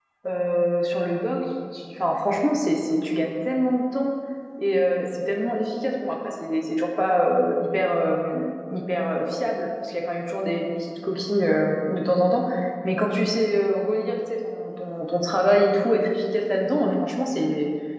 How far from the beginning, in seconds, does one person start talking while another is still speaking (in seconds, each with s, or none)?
none